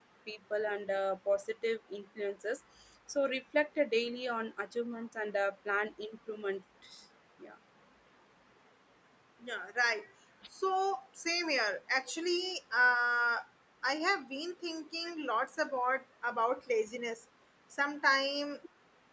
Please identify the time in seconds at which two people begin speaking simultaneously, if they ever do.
none

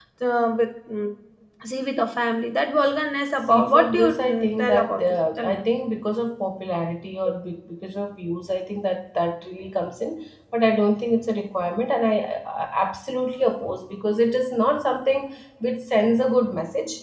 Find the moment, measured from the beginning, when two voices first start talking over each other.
3.4 s

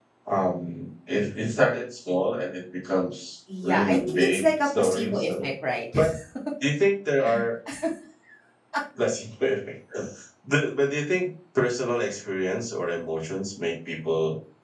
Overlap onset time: 3.5 s

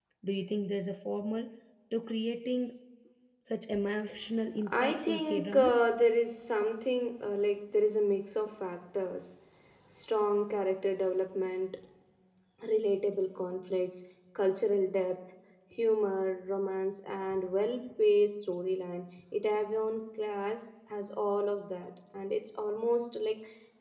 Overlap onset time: 4.6 s

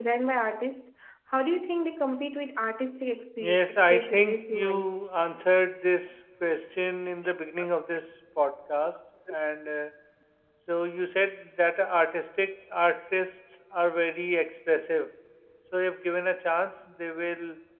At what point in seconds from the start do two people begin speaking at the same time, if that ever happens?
3.4 s

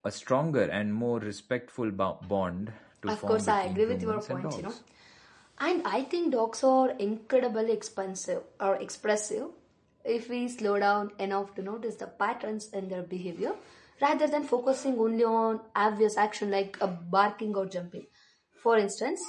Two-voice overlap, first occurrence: 3.1 s

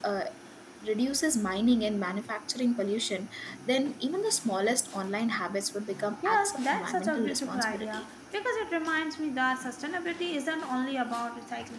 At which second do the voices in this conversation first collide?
6.2 s

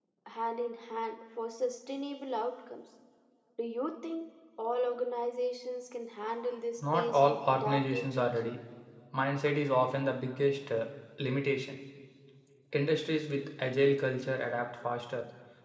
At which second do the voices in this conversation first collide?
6.8 s

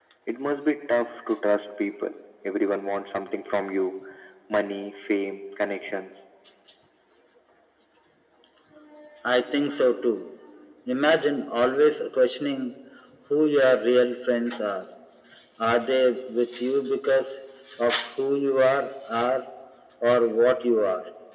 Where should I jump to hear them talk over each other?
none

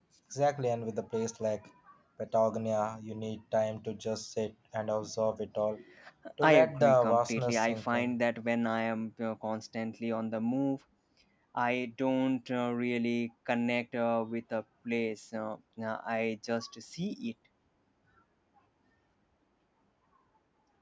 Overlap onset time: 6.4 s

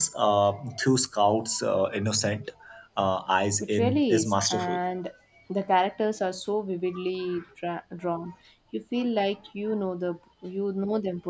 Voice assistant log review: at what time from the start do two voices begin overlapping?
3.6 s

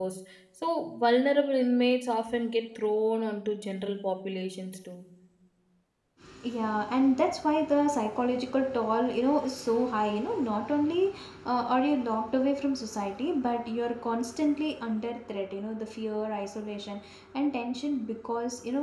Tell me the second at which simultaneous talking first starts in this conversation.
none

